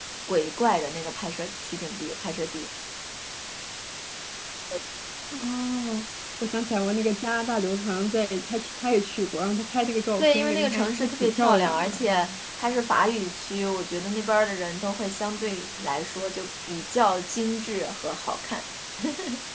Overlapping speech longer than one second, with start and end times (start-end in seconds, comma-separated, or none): 10.2-12.1